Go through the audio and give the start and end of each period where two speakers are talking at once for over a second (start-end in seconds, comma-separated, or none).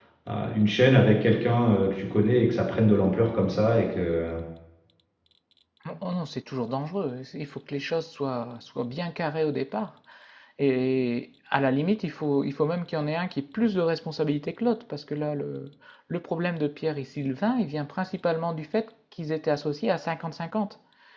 none